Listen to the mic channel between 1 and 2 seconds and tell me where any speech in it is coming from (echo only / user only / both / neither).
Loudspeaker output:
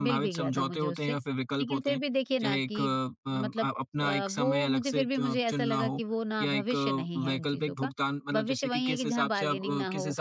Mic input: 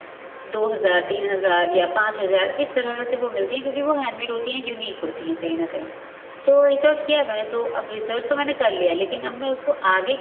user only